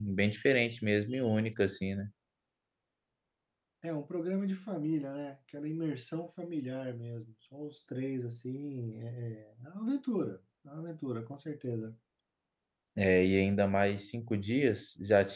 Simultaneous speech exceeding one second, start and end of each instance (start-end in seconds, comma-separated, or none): none